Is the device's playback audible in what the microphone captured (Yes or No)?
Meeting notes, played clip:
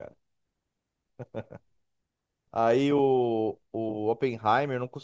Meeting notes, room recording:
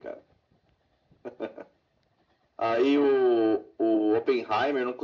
Yes